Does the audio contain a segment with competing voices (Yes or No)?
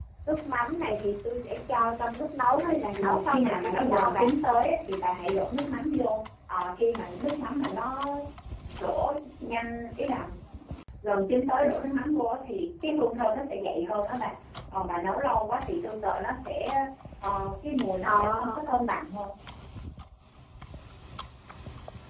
Yes